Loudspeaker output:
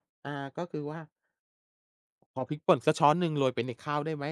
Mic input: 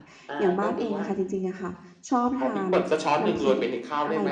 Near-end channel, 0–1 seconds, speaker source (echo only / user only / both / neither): both